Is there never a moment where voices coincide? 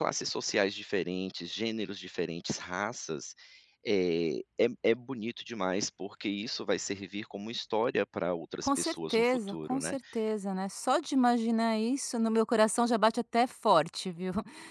No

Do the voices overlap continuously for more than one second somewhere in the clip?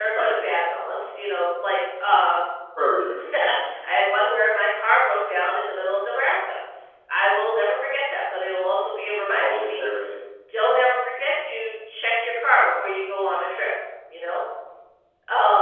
No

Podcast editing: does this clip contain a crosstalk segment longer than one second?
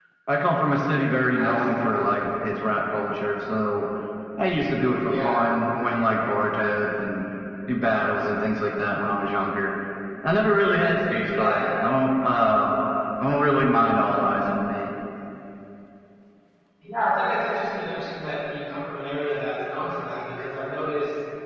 No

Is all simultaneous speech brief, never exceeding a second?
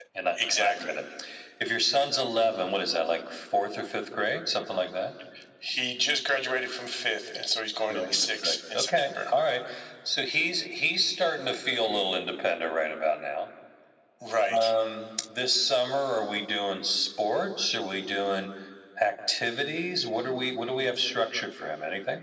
No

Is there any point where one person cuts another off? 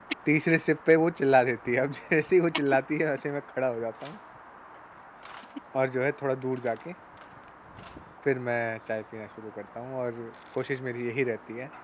No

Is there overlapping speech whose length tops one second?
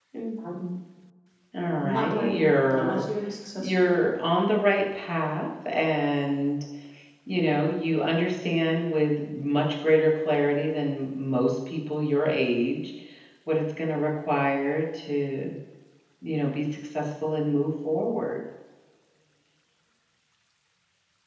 Yes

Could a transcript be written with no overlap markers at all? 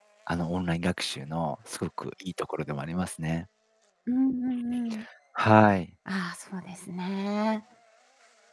Yes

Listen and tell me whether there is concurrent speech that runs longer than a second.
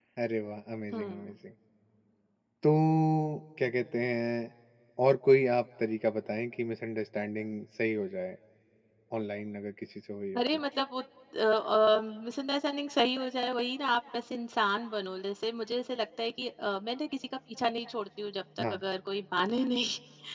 No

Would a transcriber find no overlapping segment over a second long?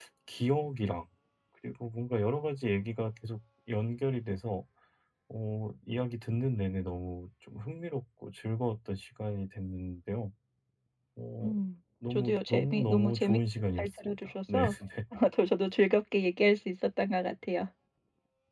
No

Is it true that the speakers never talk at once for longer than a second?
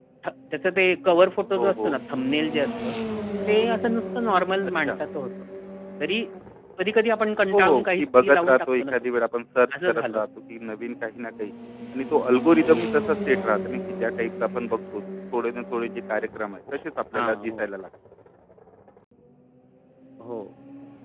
No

